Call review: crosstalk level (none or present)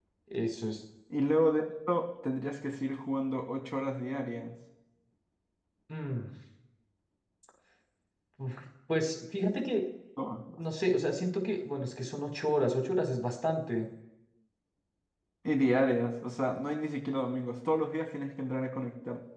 none